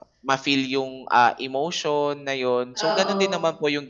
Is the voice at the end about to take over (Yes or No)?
No